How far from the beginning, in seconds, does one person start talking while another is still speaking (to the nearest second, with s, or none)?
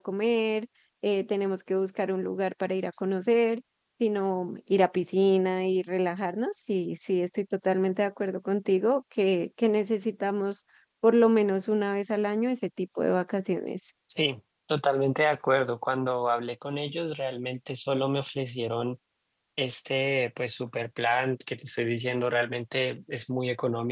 none